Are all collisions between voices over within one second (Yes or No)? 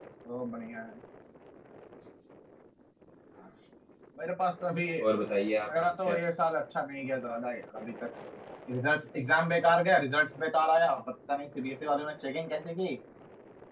Yes